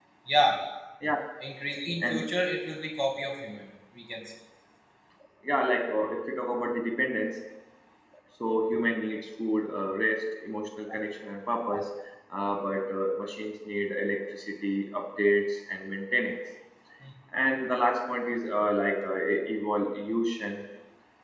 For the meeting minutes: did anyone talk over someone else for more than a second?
No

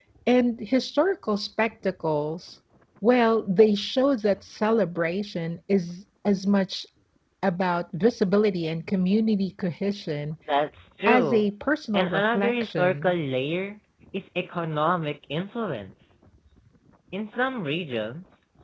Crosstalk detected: Yes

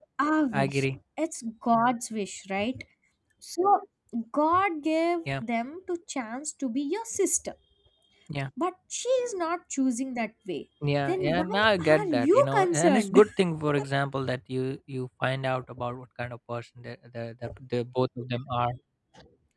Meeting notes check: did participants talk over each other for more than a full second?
Yes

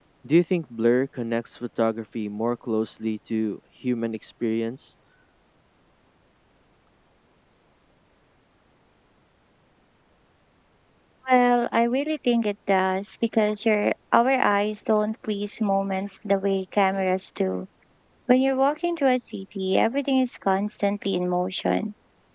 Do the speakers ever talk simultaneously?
No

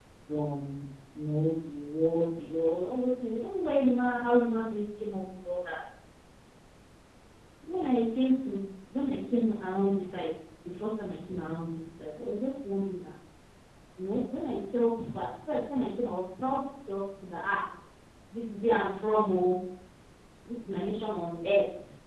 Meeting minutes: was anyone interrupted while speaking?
No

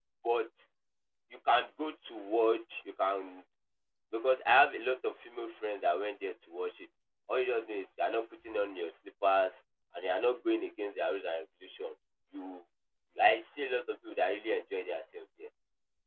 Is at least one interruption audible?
No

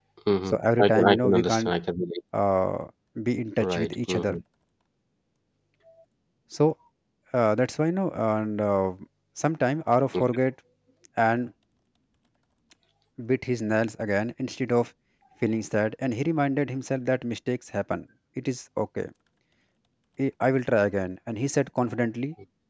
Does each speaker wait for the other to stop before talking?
No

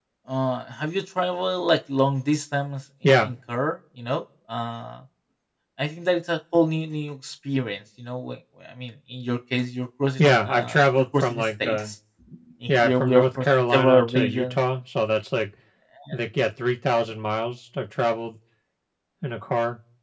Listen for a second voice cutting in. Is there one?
Yes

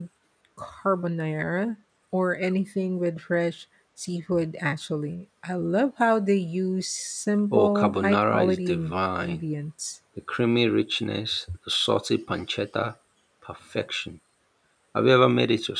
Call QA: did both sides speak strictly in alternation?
No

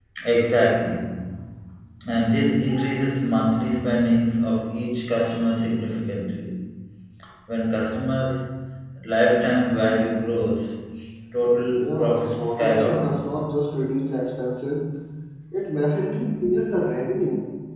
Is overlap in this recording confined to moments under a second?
No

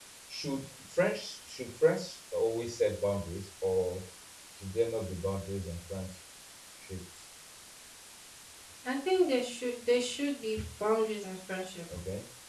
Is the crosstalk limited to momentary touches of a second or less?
Yes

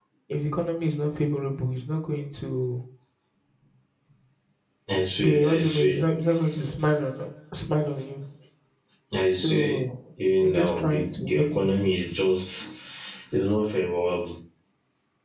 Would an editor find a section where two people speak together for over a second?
Yes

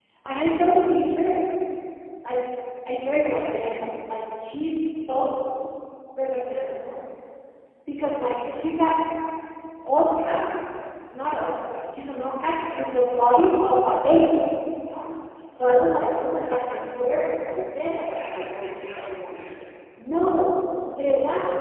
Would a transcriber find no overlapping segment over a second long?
No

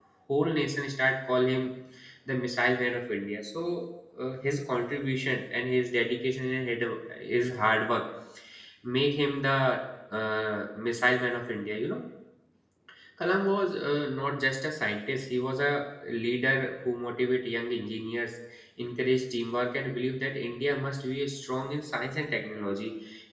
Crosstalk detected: No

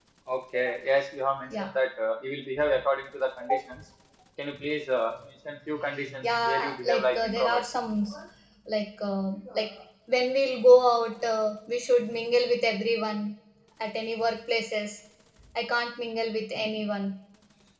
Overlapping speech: Yes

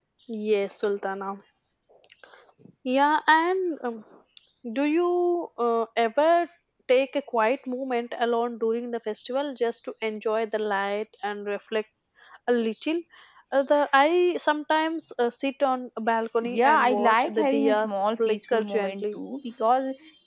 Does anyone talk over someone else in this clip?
Yes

